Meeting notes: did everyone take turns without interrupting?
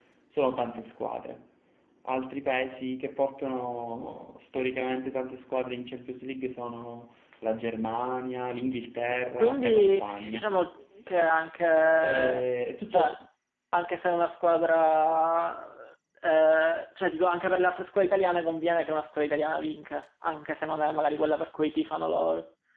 No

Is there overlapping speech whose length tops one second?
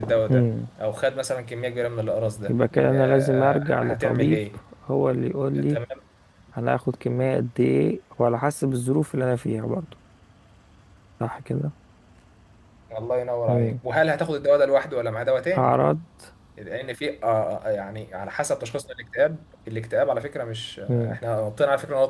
Yes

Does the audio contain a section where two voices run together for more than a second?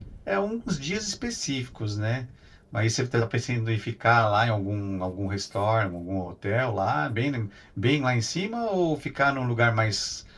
No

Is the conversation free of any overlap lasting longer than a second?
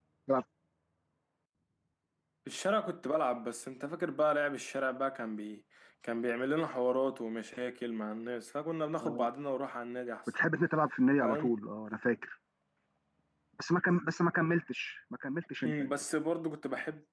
Yes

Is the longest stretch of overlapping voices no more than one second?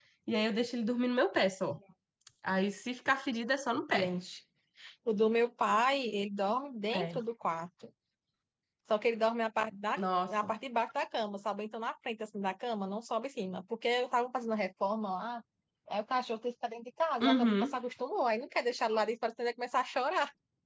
Yes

